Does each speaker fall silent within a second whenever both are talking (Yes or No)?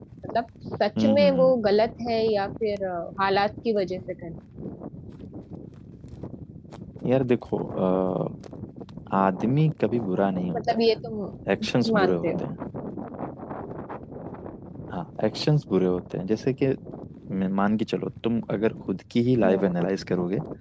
Yes